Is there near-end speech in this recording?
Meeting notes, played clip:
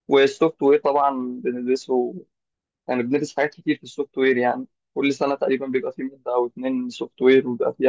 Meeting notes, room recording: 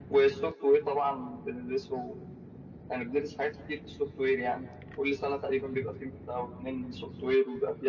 No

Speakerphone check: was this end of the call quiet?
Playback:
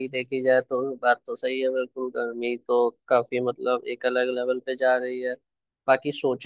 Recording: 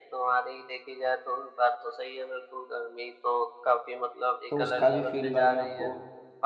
No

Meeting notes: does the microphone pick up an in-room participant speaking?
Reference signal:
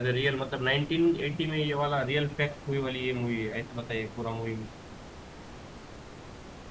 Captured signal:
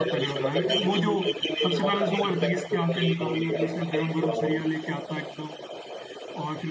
Yes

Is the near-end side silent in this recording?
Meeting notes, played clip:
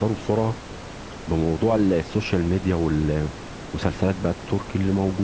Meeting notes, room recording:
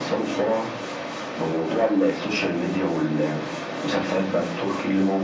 Yes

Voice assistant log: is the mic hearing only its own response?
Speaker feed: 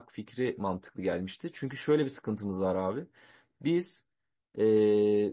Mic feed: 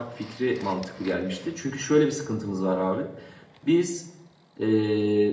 Yes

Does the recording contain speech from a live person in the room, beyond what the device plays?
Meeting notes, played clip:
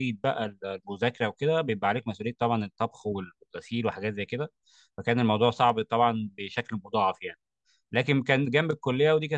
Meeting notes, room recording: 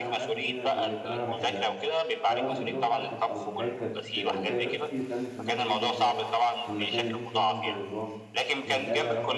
Yes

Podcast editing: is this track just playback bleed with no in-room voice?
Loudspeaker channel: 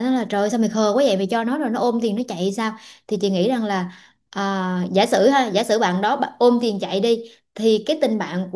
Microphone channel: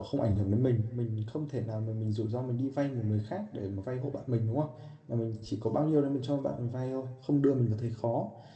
No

